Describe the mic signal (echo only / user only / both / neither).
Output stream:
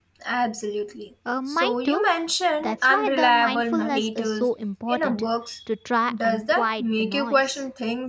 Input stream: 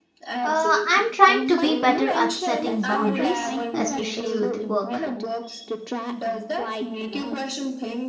both